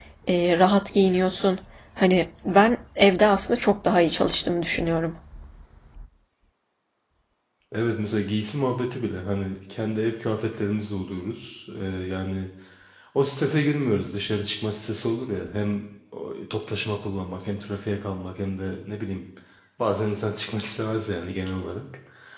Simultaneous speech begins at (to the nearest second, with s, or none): none